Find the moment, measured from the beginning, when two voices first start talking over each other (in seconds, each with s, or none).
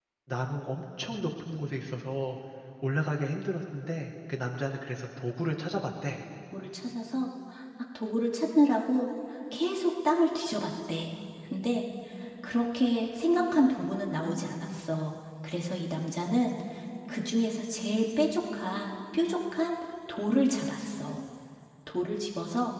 none